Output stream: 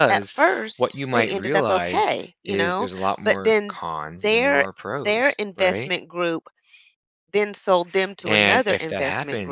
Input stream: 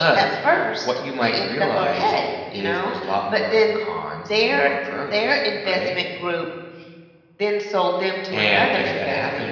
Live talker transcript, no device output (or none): none